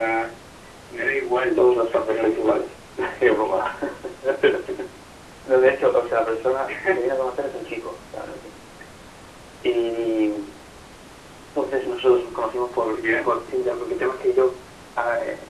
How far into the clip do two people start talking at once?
1 s

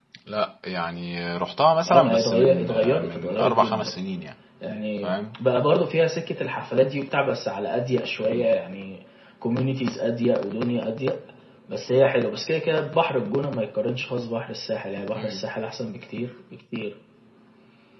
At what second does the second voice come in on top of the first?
2 s

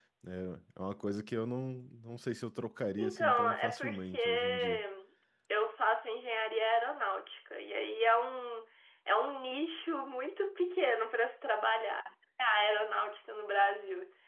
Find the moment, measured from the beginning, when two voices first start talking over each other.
3 s

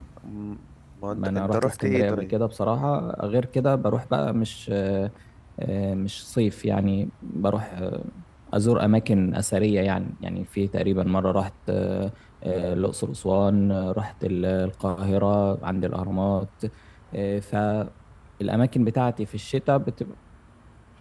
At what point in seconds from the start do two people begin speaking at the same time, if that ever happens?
1 s

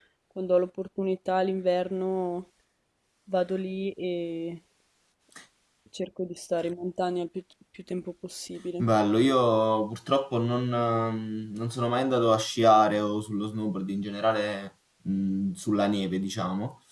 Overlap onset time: none

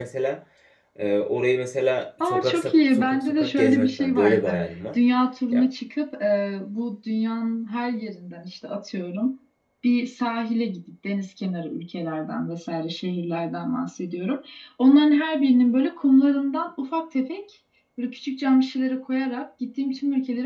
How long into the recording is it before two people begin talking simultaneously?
2 s

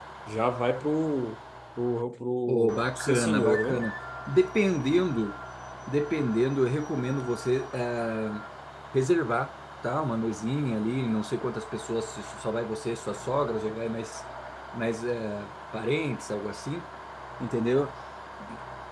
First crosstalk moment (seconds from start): 2 s

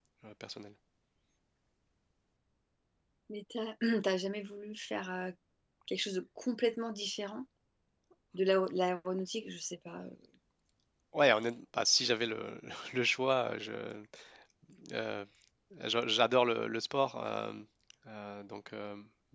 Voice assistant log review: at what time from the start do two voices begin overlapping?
none

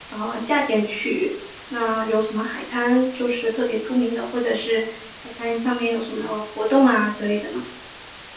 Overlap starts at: none

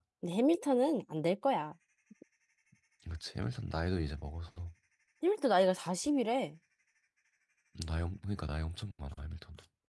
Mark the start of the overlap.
none

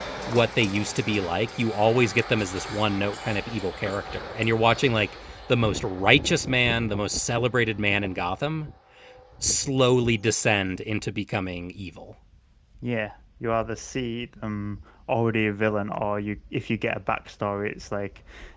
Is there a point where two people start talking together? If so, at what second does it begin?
none

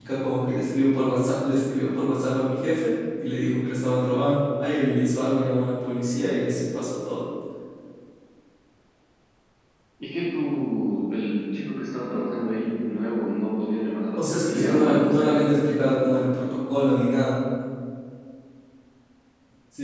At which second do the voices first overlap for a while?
14 s

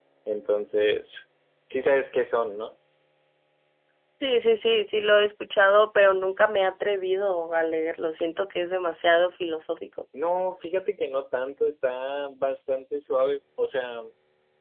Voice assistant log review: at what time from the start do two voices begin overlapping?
none

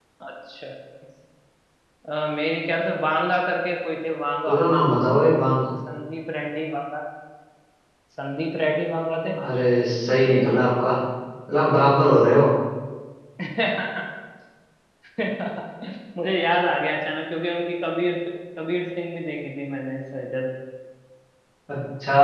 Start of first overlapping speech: none

